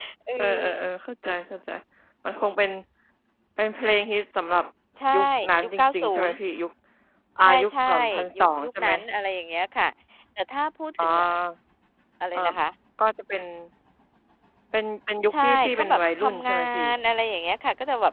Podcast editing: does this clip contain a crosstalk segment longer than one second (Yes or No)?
Yes